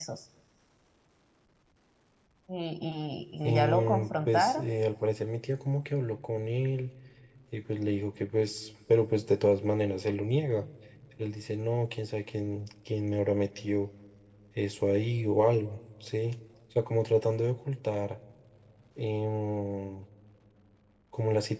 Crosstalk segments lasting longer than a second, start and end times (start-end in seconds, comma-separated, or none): 3.4-4.7